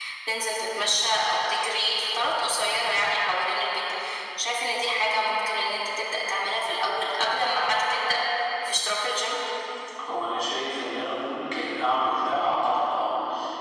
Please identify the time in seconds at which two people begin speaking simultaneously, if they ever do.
none

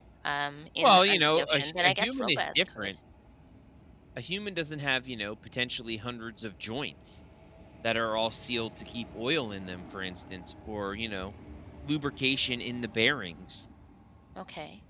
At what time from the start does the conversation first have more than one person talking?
0.8 s

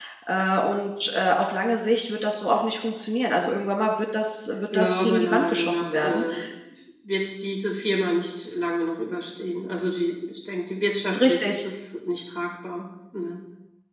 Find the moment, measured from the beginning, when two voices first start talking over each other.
4.7 s

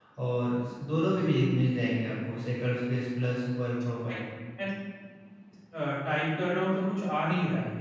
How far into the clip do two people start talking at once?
none

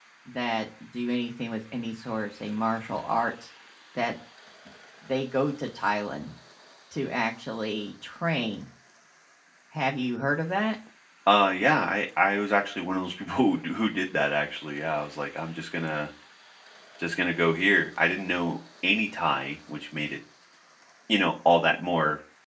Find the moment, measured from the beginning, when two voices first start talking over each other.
none

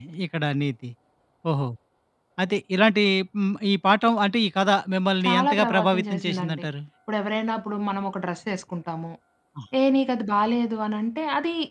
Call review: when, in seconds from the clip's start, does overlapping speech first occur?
5.2 s

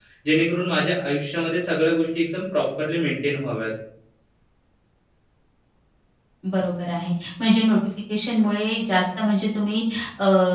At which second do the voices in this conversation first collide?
none

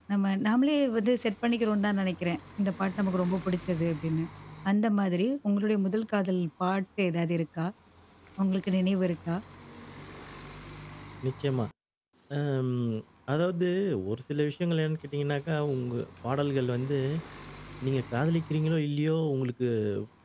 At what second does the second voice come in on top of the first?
none

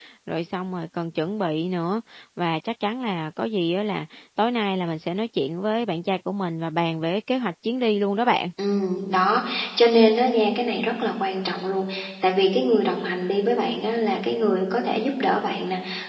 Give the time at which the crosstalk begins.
none

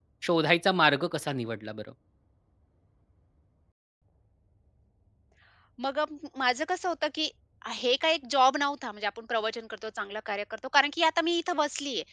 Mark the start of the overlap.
none

